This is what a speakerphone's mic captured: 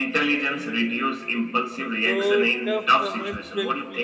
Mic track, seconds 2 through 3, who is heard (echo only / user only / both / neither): both